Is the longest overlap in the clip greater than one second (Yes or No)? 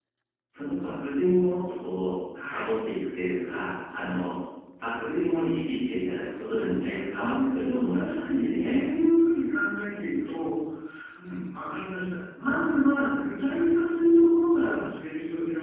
Yes